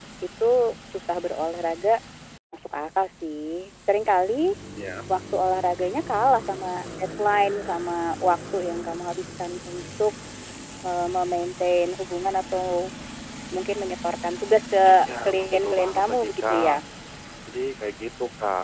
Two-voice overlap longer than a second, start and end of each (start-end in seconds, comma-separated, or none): 14.9-16.8